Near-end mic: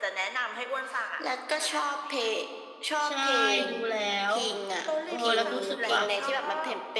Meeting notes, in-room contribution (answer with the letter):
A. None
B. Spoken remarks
B